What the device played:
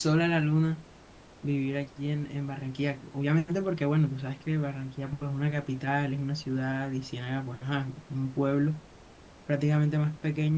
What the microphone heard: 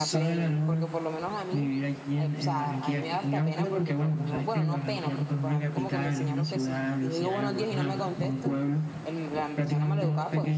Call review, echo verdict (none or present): present